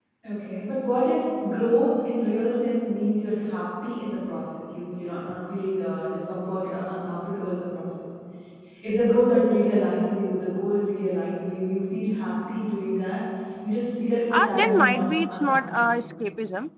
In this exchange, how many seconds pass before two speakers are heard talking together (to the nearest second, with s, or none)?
14 s